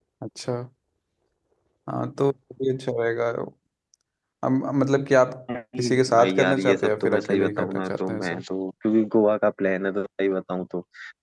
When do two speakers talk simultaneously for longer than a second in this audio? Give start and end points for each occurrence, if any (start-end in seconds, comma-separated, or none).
5.8-8.4